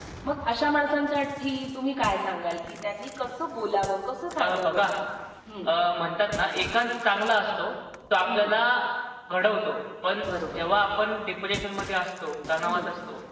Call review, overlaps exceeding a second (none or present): none